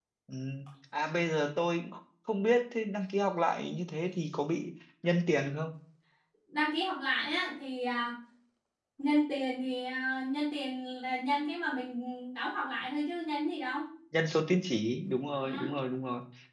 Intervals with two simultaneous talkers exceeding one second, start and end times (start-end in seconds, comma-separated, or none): none